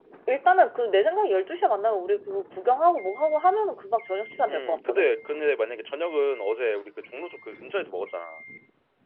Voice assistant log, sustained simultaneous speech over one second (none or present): none